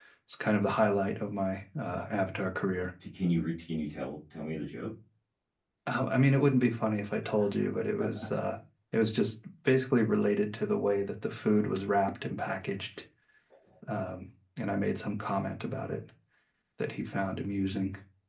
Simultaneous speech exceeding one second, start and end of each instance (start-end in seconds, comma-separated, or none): none